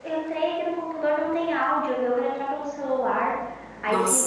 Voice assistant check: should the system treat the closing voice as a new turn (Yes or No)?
No